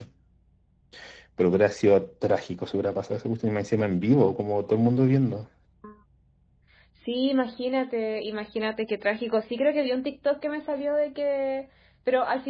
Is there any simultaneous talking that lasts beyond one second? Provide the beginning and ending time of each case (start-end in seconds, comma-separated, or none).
none